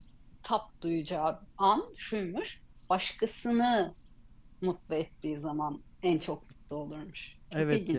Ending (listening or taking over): taking over